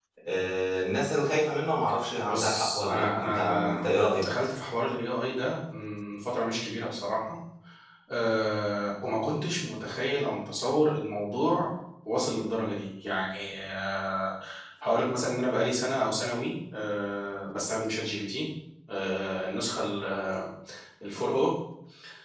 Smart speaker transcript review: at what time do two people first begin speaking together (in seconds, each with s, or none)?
2.2 s